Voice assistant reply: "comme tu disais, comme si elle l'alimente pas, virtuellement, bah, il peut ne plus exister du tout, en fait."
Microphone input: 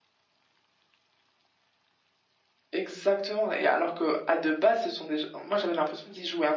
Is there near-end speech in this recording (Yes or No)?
Yes